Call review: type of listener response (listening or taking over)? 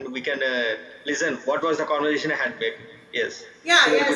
taking over